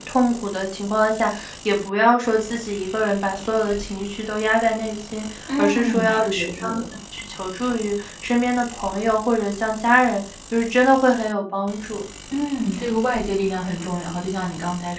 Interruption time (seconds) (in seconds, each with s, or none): 5.5 s